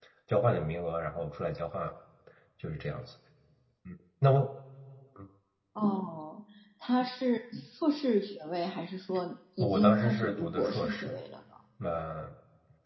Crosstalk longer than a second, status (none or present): present